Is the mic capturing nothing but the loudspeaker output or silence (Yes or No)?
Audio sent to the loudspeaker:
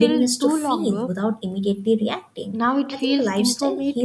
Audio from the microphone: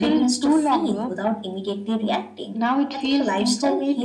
Yes